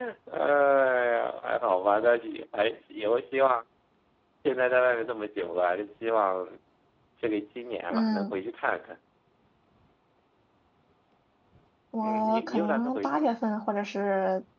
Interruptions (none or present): present